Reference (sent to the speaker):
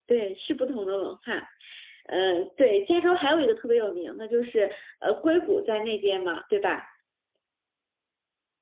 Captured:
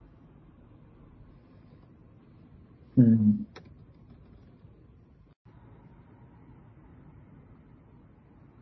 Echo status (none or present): none